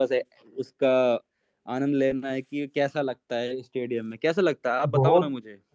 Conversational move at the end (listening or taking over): taking over